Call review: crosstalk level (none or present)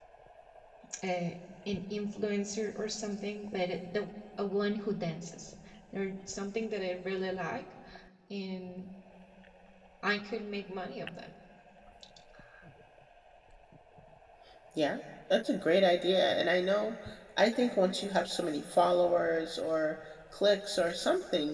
none